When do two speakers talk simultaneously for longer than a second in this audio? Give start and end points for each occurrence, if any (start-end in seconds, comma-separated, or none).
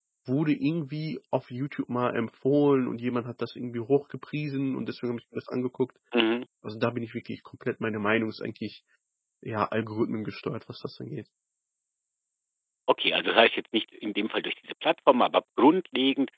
none